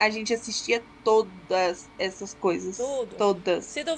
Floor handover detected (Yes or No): Yes